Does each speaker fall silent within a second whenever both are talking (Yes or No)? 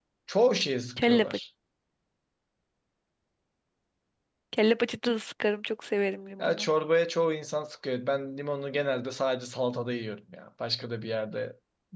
Yes